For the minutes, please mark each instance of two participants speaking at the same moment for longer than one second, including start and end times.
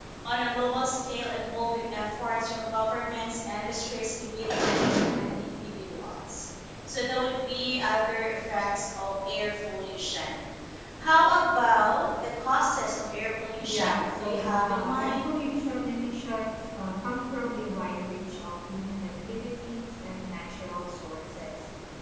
13.7-15.3

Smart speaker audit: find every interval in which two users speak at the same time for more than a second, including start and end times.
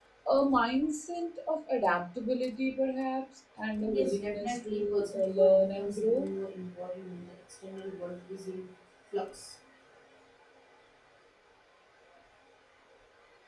3.8-6.3

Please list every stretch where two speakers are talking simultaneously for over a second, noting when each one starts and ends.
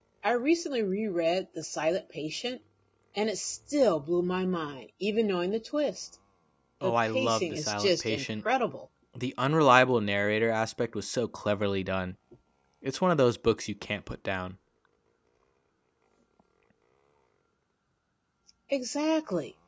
6.8-8.2

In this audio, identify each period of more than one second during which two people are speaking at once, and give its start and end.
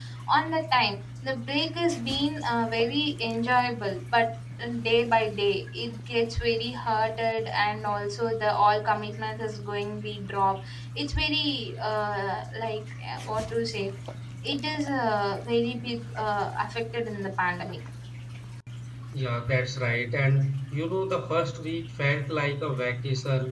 none

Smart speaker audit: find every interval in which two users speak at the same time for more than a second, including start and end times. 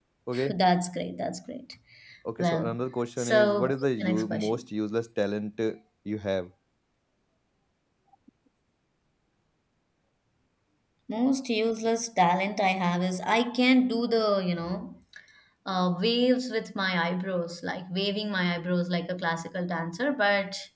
3.2-4.6

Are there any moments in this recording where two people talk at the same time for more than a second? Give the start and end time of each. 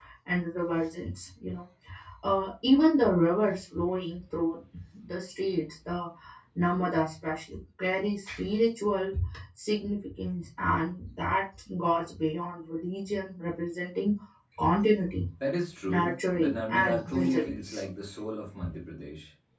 15.9-17.8

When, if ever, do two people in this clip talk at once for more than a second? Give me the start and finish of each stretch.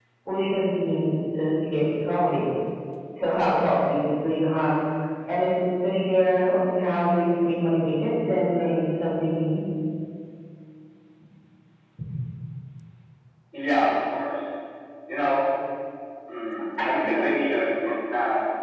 none

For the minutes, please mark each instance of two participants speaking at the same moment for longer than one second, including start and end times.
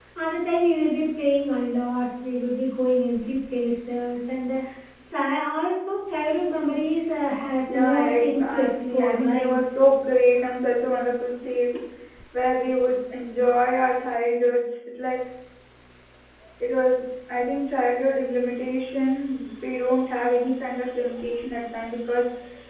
7.7-9.6

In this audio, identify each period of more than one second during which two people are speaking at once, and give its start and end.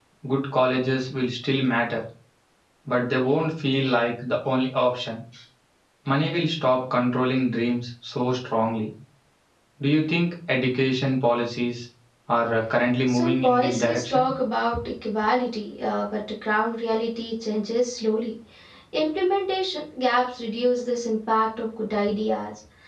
13.1-14.3

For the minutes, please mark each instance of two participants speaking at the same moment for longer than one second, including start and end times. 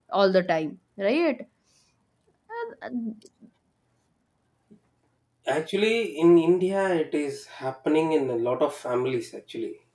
none

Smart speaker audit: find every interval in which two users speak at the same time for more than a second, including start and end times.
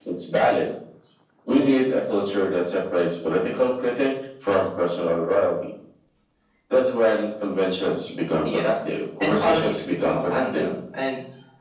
9.2-10.7

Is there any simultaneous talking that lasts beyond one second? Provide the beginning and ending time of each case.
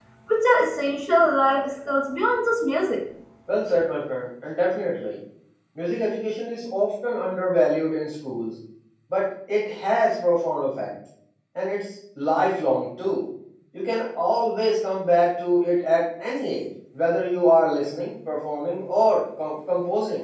none

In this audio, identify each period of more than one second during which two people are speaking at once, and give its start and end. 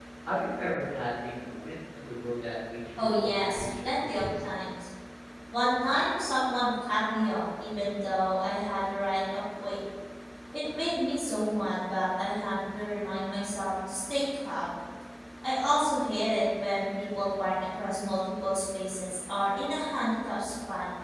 3.0-4.2

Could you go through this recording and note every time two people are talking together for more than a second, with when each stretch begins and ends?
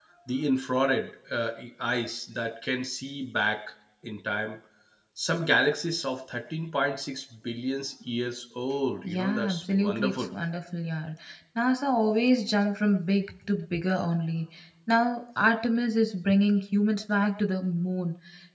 9.0-10.3

